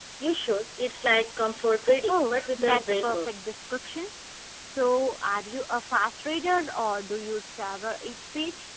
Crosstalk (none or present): present